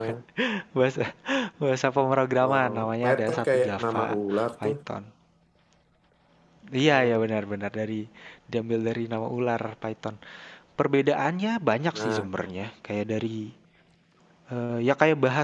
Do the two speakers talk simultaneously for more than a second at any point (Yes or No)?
Yes